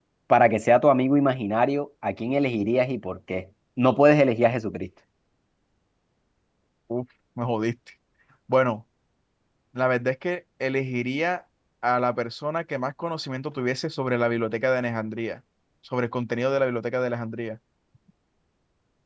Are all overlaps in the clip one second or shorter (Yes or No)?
Yes